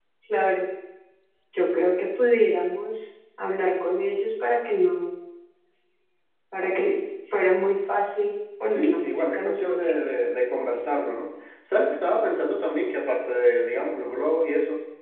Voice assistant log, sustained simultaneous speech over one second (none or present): present